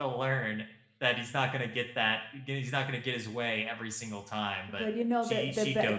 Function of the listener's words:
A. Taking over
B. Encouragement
A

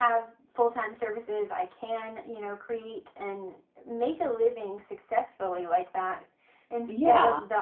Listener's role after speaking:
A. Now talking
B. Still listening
B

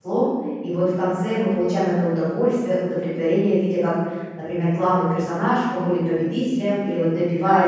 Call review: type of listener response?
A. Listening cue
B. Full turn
B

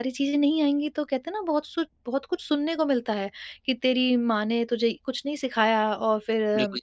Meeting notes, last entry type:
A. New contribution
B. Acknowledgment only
A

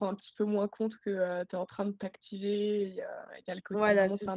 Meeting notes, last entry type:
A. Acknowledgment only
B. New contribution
B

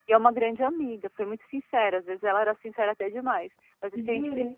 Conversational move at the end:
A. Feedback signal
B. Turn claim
A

